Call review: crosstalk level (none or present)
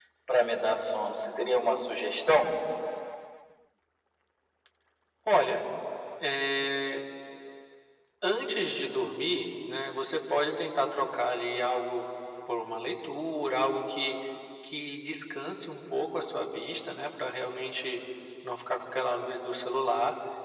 none